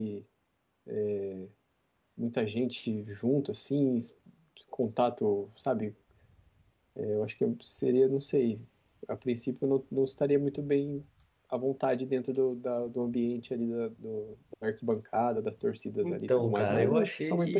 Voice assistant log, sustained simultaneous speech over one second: present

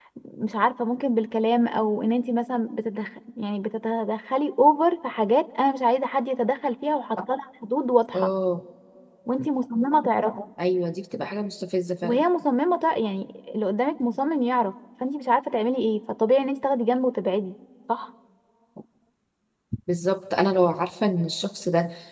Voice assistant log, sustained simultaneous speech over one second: none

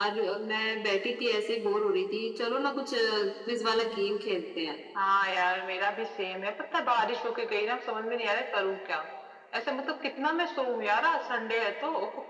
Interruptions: none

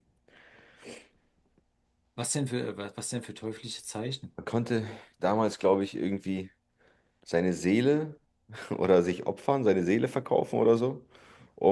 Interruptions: none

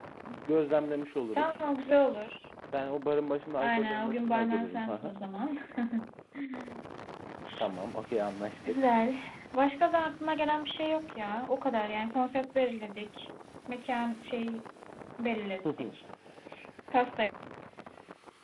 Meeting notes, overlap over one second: present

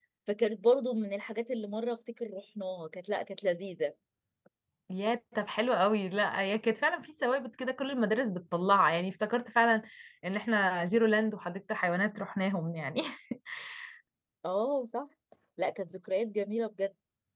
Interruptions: none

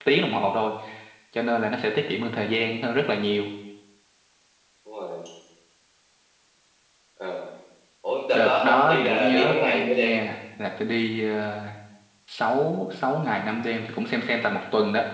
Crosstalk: present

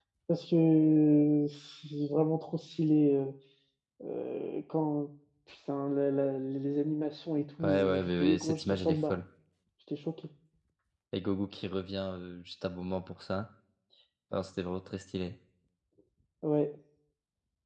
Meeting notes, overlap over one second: present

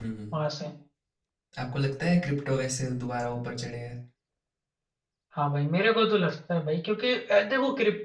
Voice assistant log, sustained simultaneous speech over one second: none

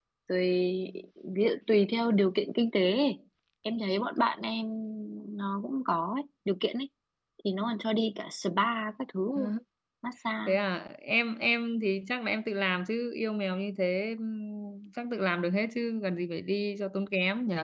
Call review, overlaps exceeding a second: none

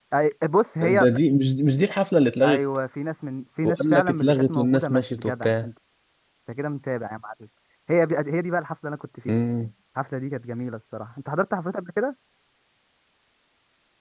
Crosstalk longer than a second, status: present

